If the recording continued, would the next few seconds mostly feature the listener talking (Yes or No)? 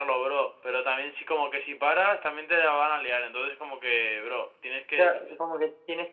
Yes